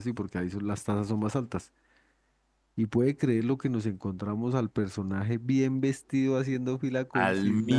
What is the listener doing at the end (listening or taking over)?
listening